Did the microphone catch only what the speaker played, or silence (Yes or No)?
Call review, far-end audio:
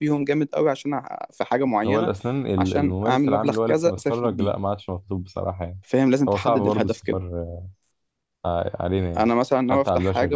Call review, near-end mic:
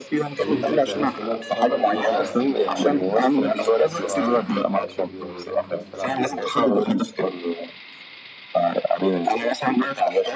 No